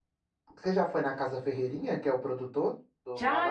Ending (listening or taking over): taking over